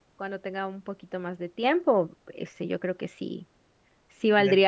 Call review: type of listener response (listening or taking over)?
listening